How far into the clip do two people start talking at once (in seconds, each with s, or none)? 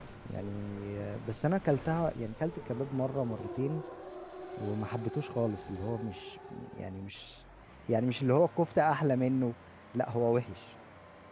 none